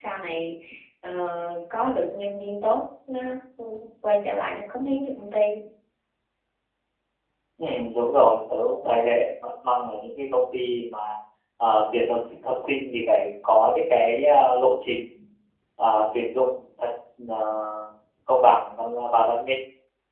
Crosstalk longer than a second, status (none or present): none